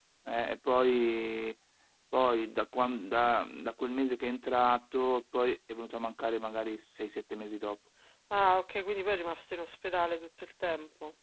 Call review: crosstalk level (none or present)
none